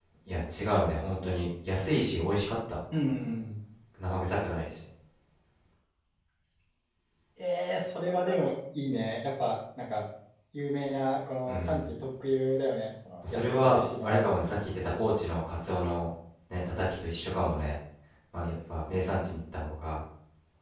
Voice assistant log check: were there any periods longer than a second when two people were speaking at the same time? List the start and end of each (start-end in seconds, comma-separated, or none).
13.3-14.7